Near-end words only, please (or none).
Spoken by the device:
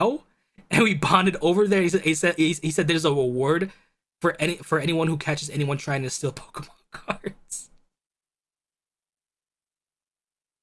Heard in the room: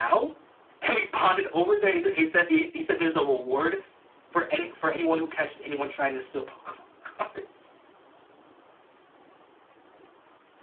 none